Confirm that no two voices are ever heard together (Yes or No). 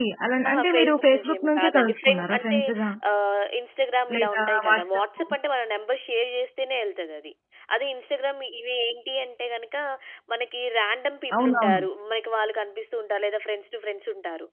No